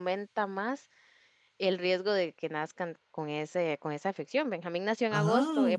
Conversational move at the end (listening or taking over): listening